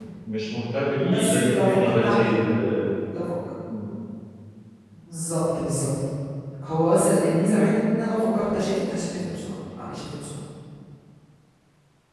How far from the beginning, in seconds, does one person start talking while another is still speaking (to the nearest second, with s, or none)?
1 s